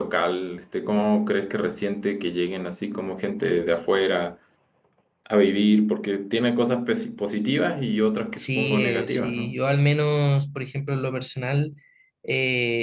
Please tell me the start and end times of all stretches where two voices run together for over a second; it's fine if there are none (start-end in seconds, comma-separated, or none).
8.4-9.6